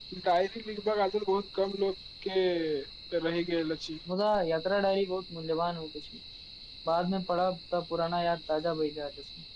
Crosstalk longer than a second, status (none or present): none